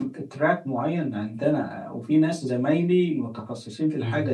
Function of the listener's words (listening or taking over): listening